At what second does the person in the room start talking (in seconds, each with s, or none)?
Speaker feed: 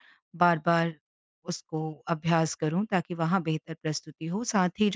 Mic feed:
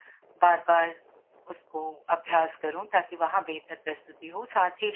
none